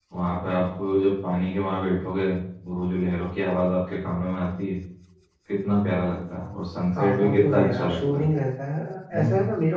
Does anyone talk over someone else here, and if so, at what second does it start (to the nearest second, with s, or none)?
7 s